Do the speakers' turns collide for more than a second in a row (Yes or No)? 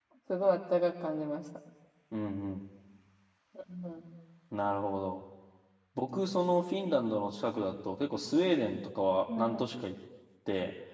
No